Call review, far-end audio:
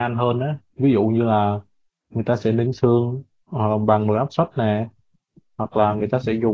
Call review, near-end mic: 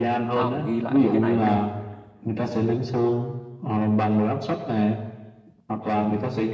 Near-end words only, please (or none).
Tao phải ghi lại mấy cái này mới được.